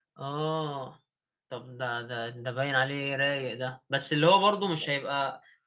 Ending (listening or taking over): listening